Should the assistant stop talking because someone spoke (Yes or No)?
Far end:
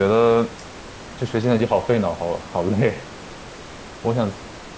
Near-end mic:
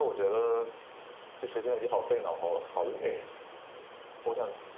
No